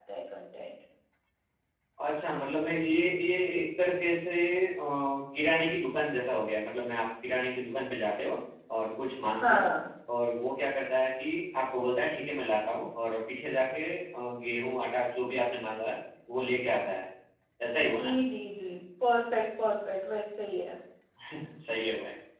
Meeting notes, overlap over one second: none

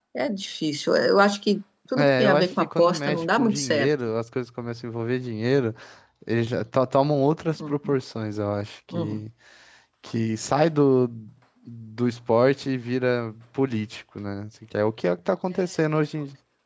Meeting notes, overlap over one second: present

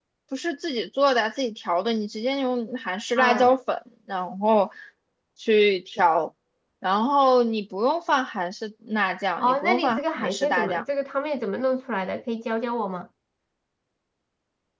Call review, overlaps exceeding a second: present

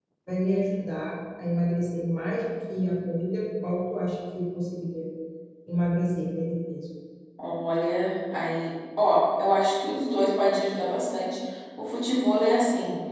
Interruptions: none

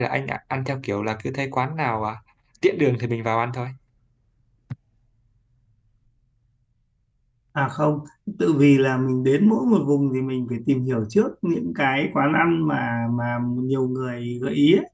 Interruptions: none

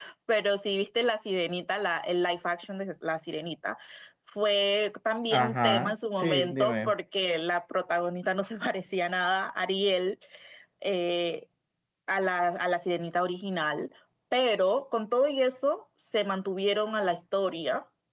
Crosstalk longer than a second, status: present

